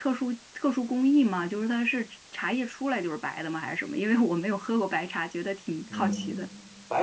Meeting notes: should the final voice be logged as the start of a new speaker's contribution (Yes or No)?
Yes